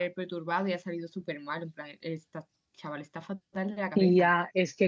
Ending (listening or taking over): taking over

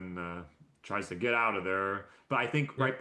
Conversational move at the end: listening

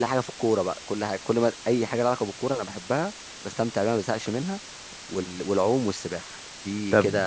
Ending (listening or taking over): taking over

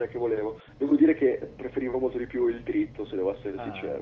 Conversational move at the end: taking over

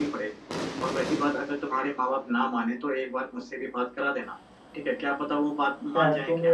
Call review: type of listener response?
taking over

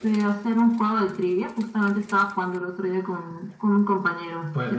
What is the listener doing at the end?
taking over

